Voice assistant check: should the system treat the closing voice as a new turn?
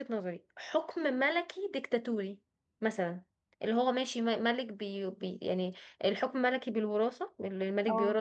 No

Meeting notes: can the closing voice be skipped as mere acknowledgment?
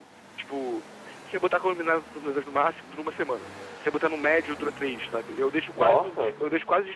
Yes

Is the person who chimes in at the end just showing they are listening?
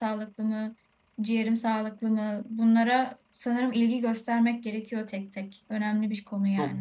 No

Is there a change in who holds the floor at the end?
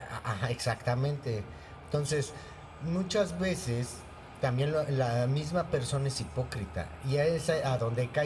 No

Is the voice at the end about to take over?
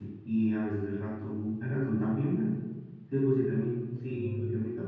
No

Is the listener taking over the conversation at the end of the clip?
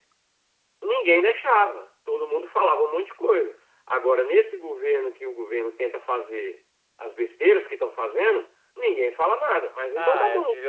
Yes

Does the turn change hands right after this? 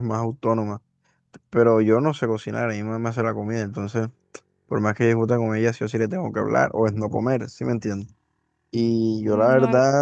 No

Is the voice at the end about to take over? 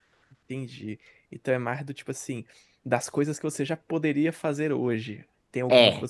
No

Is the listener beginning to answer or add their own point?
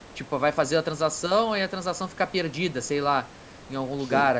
No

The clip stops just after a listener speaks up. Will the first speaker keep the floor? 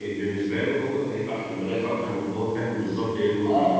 No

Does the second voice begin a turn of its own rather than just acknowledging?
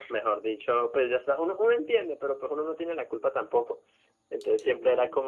No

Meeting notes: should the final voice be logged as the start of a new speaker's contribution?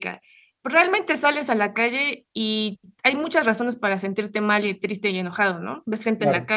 No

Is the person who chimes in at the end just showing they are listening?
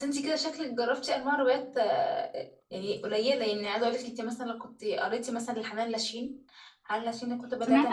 No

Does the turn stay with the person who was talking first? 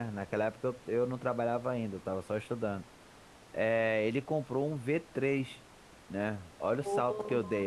Yes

